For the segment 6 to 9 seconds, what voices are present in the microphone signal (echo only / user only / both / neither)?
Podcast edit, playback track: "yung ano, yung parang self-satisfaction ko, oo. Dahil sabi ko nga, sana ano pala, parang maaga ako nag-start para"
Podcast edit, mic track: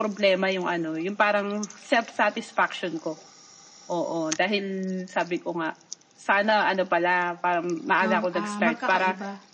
both